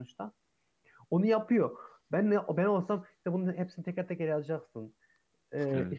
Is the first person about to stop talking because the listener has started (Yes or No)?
No